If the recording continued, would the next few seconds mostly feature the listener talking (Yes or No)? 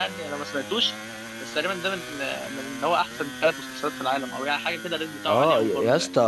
Yes